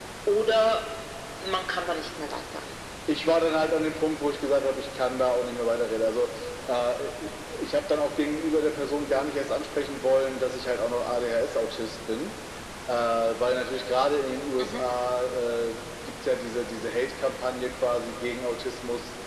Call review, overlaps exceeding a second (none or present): none